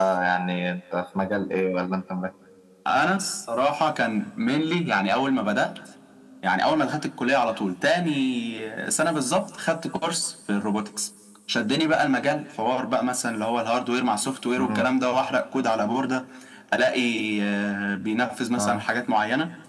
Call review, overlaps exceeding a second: none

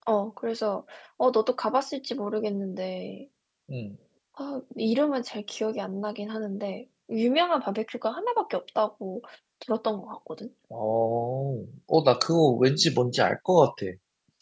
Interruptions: none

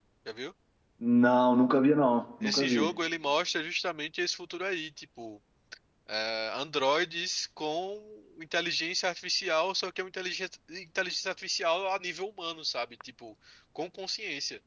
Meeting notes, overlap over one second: none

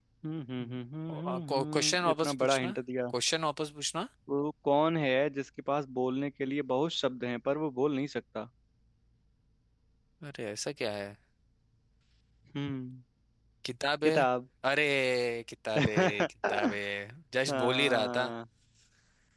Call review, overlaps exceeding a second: present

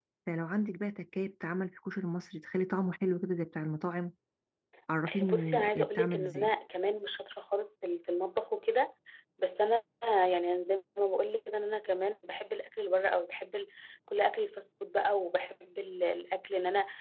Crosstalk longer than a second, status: present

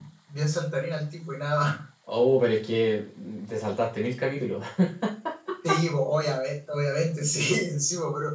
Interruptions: none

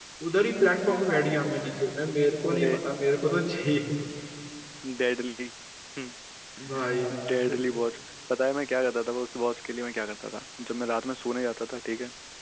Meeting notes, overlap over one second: none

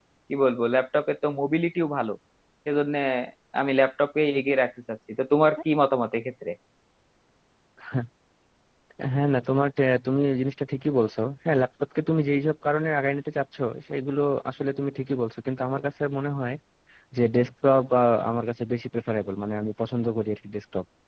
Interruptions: none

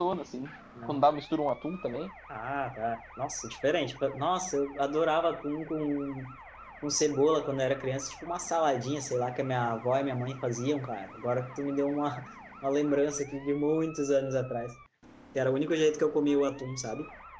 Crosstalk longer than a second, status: none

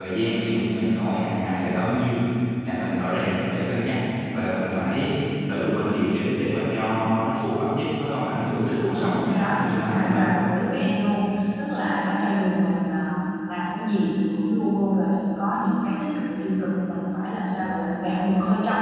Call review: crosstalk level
present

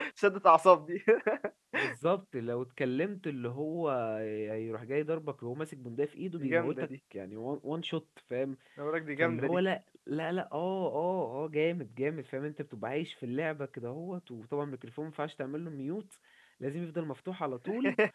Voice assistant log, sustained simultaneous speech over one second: none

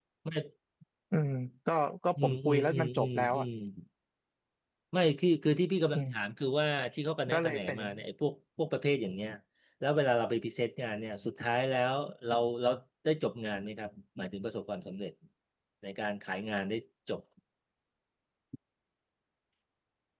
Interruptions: present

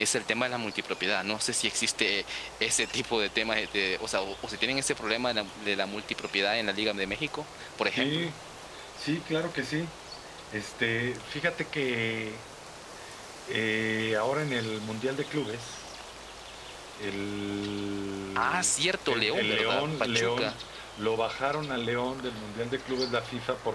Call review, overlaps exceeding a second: present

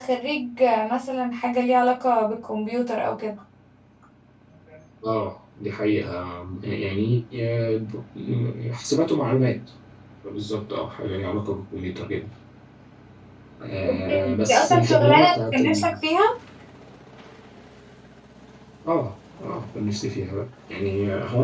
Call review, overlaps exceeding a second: present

